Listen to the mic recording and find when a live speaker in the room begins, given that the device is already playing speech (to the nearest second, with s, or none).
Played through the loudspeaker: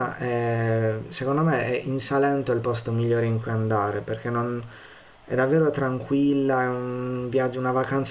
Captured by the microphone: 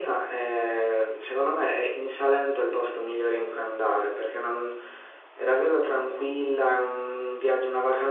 none